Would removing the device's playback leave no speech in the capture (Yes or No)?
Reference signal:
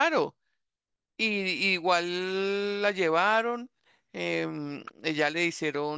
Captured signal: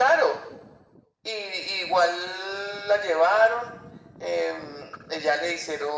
Yes